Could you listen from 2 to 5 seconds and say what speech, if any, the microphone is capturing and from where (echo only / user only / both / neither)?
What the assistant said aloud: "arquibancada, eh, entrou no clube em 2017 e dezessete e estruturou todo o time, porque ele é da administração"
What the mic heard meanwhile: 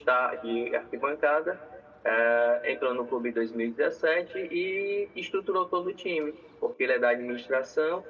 echo only